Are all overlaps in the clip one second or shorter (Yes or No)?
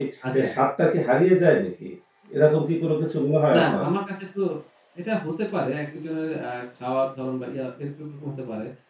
Yes